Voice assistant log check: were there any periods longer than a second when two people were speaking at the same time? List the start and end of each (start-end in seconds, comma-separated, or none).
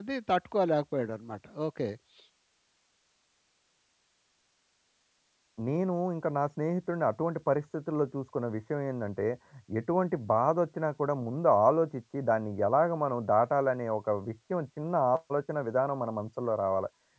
none